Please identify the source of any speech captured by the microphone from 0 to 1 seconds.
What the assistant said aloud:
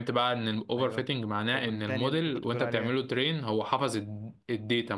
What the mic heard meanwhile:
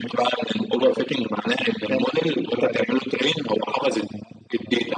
echo only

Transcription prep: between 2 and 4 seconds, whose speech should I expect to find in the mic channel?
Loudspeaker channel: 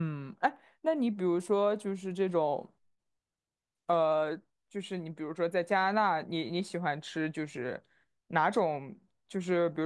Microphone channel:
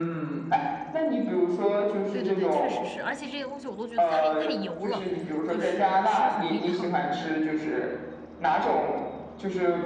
both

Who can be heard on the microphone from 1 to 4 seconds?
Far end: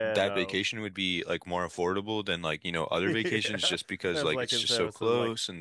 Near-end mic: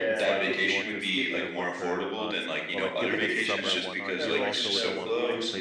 both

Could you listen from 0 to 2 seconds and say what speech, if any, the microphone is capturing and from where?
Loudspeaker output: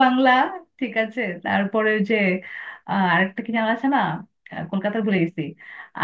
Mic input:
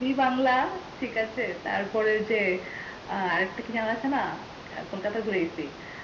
echo only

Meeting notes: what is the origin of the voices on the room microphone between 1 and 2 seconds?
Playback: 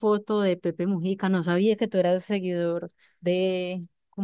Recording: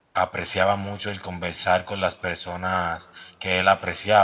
user only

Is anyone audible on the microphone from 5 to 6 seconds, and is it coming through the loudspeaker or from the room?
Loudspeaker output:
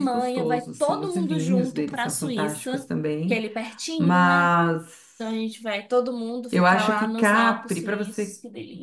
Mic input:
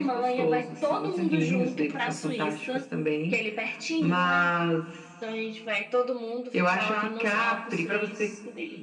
echo only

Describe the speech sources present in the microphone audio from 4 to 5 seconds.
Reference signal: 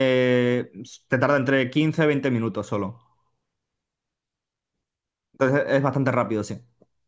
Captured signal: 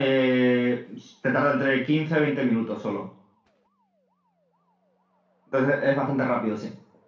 neither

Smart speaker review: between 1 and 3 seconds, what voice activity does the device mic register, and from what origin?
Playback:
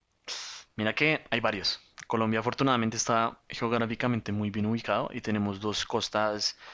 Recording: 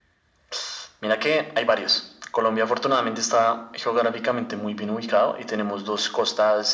echo only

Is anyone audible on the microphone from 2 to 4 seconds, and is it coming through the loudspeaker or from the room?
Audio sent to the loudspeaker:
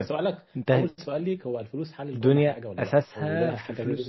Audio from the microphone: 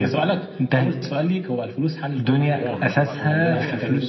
both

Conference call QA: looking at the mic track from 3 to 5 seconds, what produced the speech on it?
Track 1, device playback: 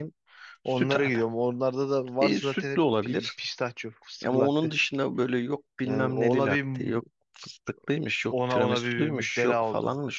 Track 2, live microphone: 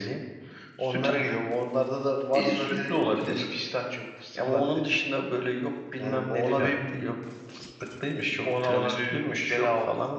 echo only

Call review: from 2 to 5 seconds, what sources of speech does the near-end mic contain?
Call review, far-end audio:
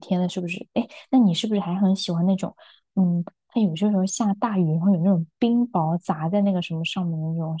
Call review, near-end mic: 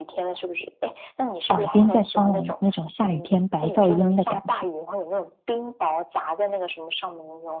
both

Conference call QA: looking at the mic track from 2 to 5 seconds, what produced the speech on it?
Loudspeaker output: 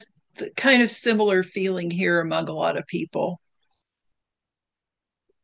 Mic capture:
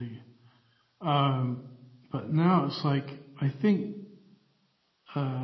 user only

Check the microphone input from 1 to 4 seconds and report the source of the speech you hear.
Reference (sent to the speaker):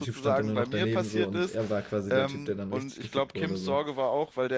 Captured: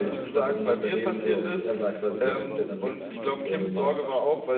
both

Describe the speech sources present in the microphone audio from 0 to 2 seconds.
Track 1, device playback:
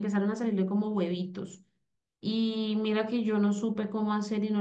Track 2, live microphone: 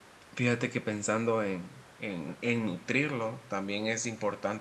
user only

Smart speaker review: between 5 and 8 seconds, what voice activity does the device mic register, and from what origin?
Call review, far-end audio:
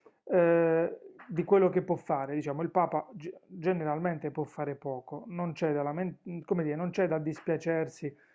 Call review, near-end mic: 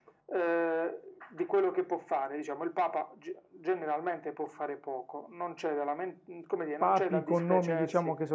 both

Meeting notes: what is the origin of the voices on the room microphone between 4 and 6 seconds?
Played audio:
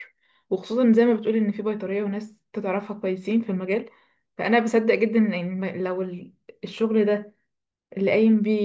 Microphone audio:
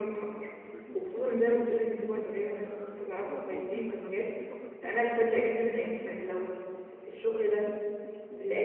both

